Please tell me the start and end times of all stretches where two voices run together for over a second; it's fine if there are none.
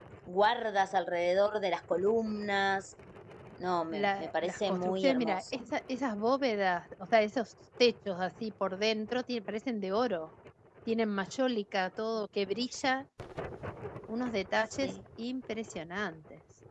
3.9-5.6

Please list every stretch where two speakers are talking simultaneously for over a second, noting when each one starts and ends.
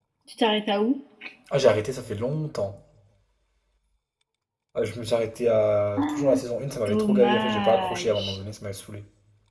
6.9-8.4

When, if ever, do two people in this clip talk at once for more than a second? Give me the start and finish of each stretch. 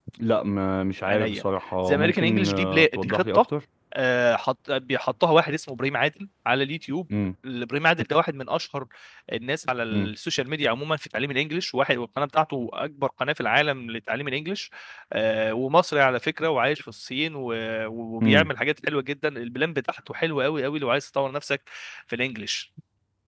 1.9-3.4

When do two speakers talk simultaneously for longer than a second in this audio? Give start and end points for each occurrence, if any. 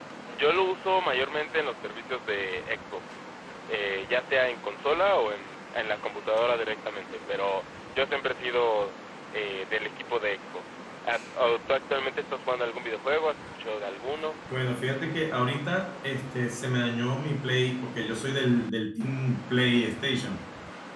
none

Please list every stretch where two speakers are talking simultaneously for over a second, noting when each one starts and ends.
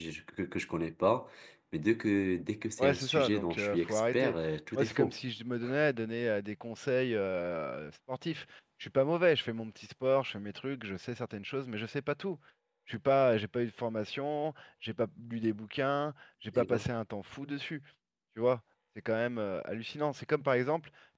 2.8-4.3

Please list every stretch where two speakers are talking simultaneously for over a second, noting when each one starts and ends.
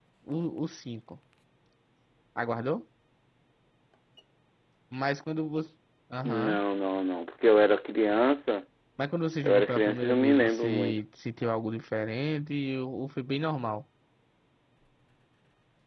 9.4-10.9

